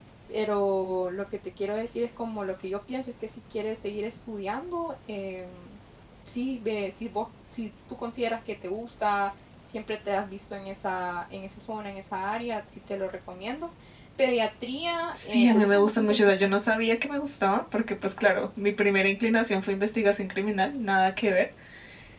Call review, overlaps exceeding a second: present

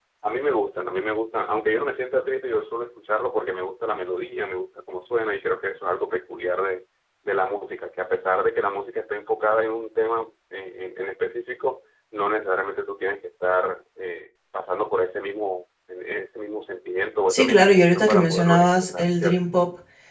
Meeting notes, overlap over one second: present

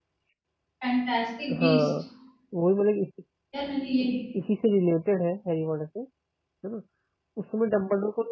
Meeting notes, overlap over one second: none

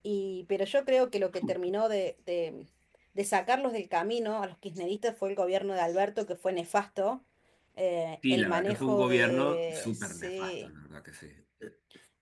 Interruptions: present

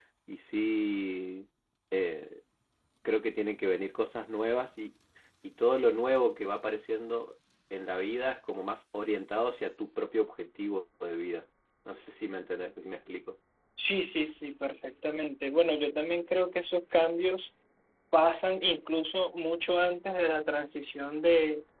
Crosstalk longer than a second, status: none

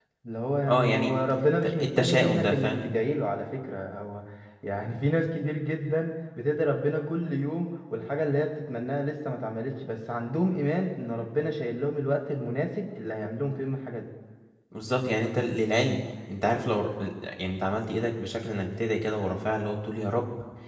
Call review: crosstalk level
present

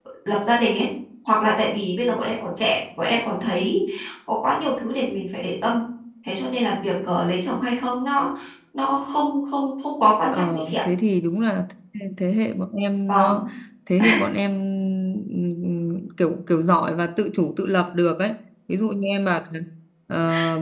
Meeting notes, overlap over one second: none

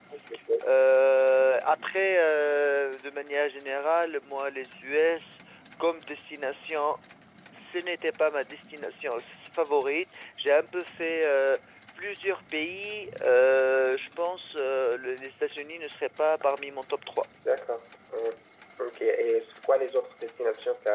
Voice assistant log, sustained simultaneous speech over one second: none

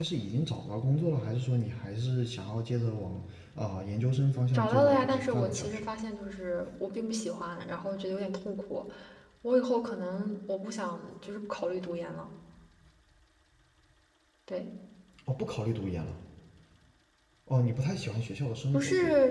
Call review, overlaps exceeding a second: present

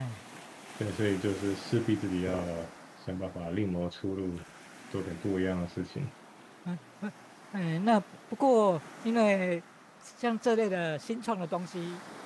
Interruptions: none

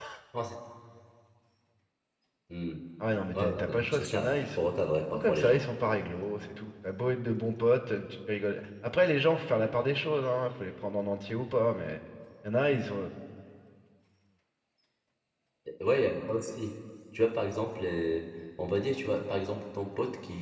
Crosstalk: present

